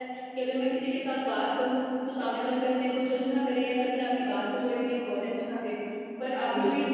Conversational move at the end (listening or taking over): listening